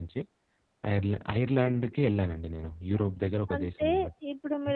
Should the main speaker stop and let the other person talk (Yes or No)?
Yes